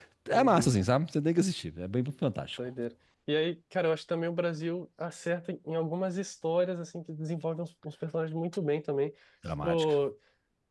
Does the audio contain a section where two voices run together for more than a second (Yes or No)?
No